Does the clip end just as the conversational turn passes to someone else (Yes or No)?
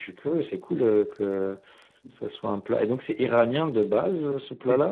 Yes